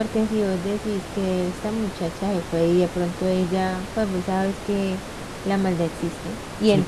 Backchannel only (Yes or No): Yes